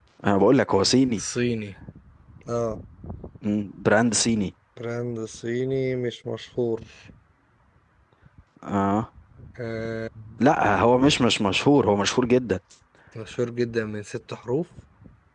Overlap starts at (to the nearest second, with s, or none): none